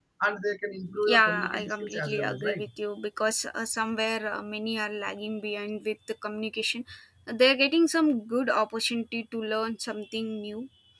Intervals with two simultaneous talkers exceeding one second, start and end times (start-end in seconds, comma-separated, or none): 1.0-2.6